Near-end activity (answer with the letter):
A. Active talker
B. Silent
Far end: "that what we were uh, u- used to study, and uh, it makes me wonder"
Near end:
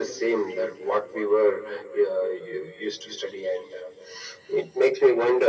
B